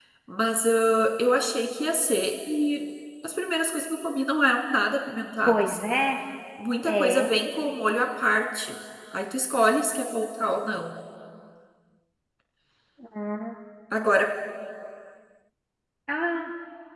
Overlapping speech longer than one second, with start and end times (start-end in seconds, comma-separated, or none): none